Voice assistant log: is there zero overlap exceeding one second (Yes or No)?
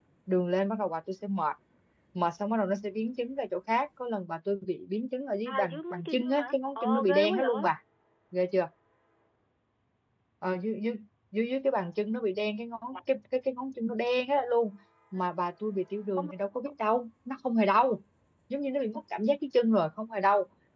No